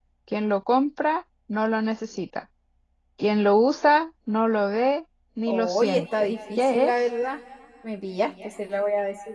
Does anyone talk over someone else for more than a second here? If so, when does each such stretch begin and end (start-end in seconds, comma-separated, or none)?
5.5-6.9